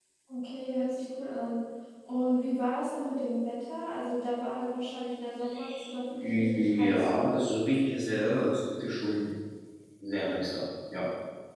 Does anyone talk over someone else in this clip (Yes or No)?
Yes